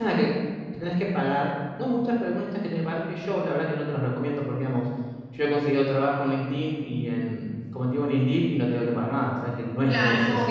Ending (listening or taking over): taking over